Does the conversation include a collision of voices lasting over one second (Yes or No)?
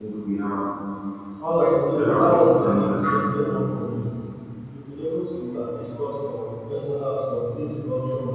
Yes